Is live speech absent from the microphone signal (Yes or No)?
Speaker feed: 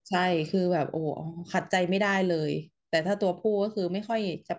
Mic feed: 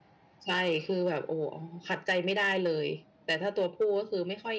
Yes